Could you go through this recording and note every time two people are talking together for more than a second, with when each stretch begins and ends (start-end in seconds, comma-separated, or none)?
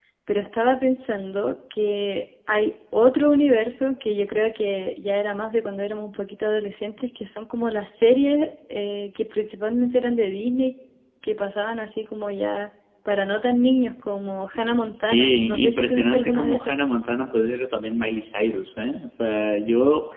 14.9-16.7